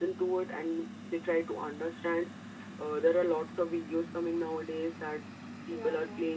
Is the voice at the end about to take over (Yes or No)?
No